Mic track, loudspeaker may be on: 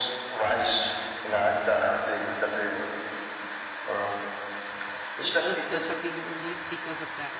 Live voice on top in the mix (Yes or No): No